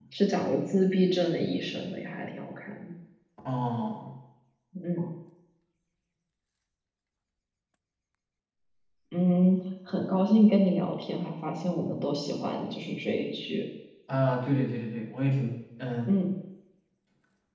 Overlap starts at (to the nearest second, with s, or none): none